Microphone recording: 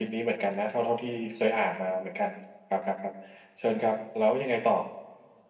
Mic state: echo only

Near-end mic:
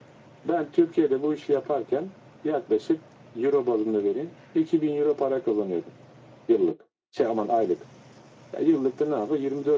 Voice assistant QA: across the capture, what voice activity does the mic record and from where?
echo only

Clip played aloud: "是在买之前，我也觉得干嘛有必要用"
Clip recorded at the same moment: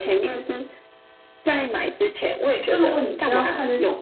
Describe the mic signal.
both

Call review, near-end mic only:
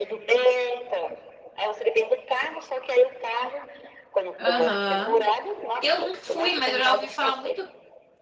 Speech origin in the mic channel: both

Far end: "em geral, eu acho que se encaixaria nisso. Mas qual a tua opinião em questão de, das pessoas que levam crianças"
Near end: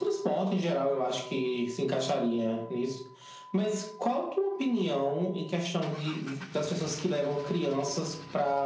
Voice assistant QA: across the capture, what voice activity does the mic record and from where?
echo only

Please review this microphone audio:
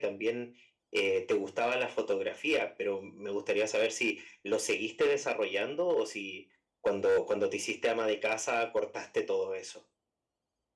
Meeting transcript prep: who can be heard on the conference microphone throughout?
echo only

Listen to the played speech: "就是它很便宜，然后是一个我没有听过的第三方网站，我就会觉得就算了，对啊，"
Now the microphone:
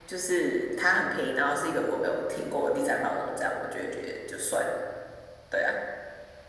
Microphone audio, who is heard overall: echo only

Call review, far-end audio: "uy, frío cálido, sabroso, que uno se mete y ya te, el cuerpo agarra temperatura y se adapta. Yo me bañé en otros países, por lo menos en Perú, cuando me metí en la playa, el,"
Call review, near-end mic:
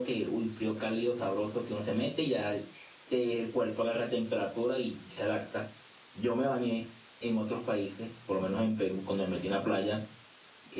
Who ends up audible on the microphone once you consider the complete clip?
echo only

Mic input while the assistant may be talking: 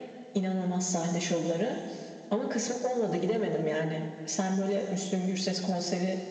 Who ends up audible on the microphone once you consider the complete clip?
echo only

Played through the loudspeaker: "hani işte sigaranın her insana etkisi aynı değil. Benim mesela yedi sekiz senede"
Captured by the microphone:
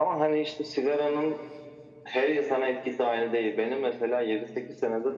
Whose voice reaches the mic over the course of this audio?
echo only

